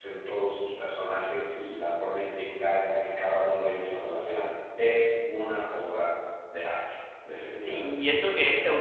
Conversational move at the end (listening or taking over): taking over